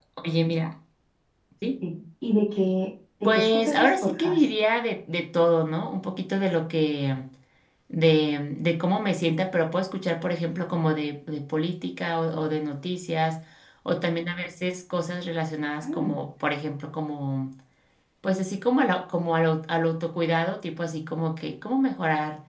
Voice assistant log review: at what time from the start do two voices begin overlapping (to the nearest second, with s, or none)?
3 s